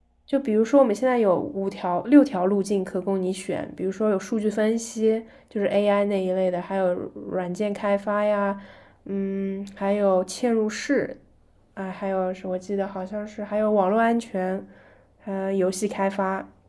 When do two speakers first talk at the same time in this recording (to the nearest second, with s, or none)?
none